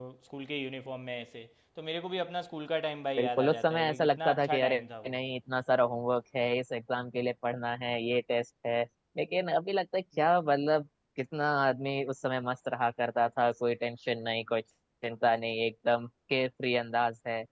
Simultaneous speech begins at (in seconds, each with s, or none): 3.2 s